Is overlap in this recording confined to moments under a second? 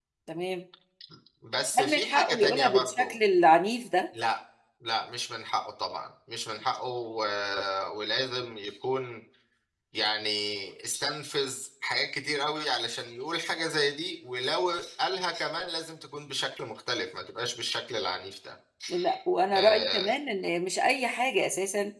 No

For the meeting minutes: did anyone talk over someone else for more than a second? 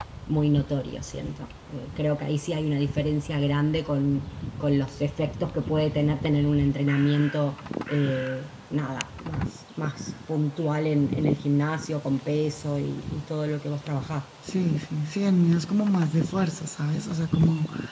No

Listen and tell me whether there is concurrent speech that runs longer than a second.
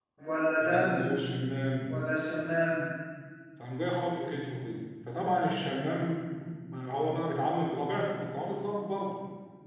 No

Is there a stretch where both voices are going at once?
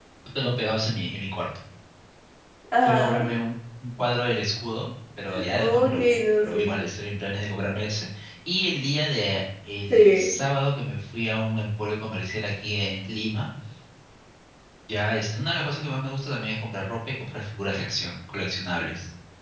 Yes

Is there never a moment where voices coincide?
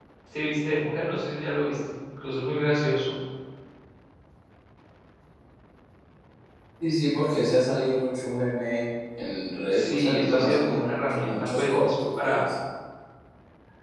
No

